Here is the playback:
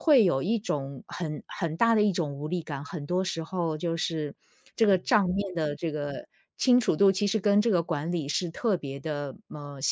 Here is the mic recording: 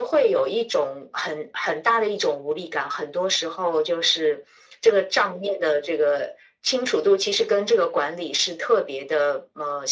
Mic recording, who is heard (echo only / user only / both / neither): echo only